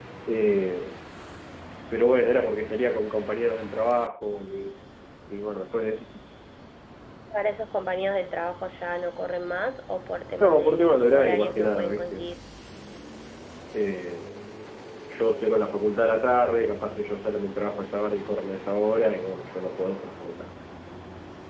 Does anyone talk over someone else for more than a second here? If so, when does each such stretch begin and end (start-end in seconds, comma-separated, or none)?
10.4-12.2